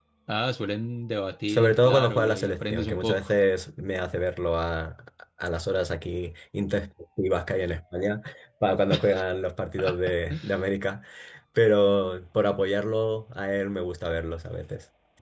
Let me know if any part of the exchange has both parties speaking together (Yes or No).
Yes